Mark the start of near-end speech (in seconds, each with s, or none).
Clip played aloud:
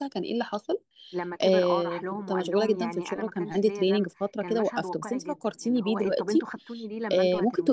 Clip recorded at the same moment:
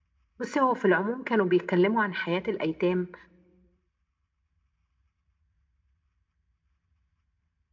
0.4 s